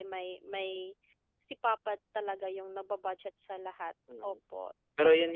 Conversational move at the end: taking over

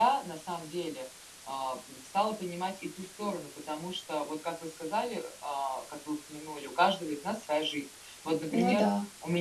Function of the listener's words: listening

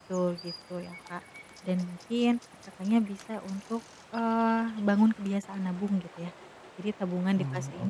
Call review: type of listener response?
listening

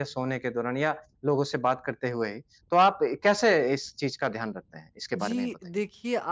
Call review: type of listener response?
taking over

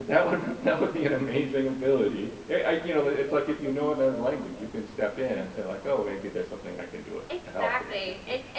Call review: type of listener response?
taking over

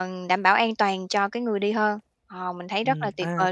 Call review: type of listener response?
taking over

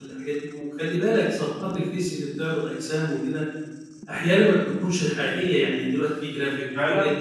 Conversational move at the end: listening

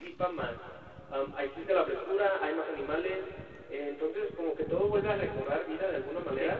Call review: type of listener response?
taking over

